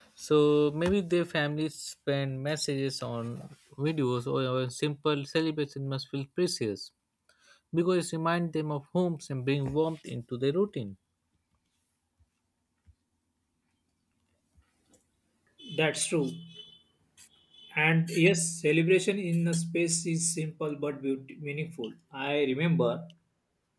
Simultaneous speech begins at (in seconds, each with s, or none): none